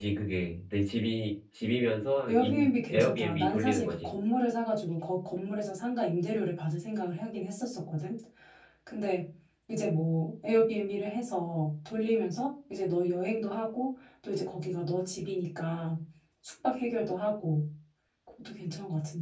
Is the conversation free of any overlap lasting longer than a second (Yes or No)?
No